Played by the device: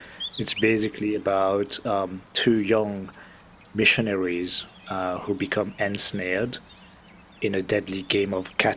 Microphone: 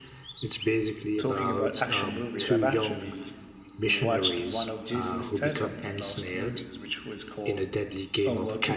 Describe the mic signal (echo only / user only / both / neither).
both